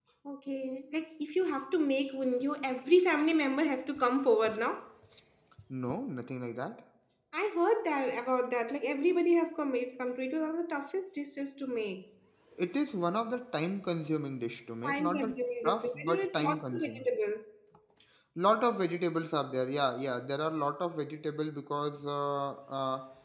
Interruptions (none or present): present